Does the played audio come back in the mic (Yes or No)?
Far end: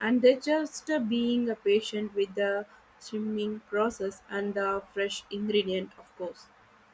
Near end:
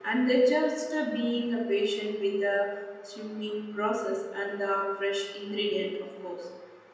Yes